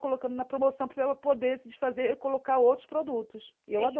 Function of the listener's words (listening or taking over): taking over